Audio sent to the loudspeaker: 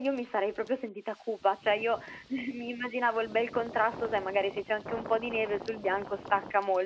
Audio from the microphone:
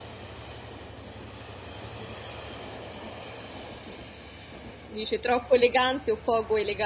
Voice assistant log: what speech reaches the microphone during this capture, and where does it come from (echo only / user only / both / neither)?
user only